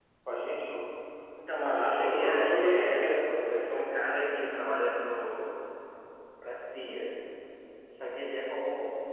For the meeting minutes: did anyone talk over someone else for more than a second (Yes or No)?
Yes